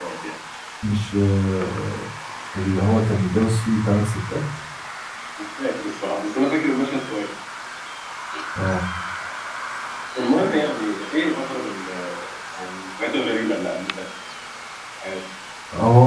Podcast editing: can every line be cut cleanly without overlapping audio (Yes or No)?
Yes